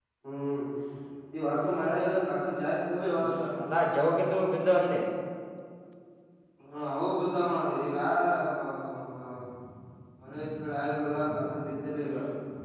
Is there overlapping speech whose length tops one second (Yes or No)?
No